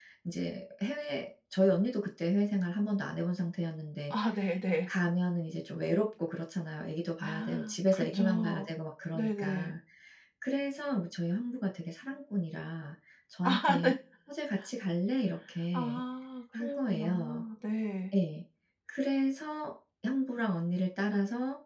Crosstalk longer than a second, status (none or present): present